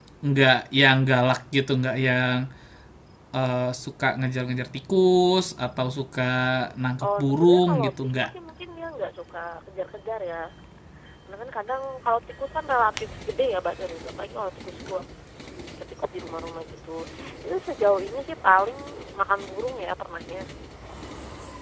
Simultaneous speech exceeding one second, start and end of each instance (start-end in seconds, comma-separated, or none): 7.1-8.3